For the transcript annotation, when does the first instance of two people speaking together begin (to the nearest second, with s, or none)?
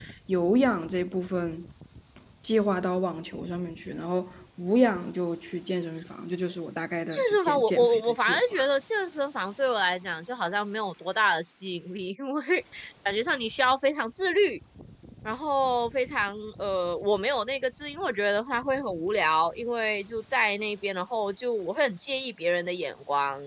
7 s